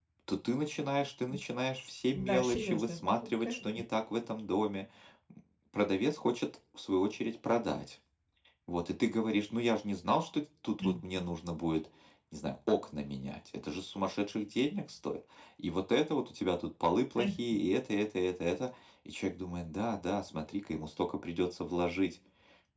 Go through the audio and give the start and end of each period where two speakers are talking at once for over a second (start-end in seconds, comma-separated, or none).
2.1-3.6